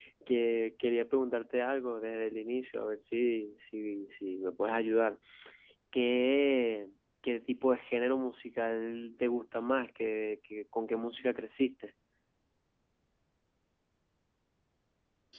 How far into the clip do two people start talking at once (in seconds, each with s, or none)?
none